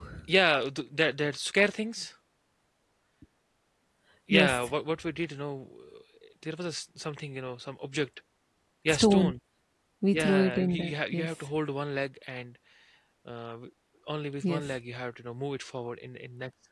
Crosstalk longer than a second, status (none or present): present